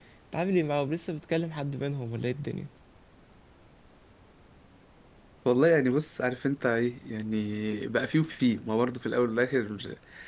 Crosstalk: none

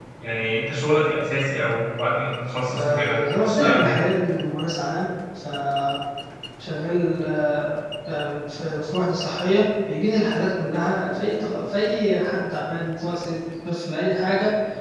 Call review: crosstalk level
present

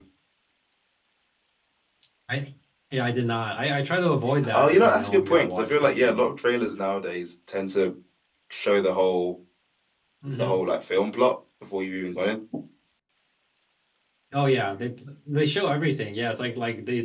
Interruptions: present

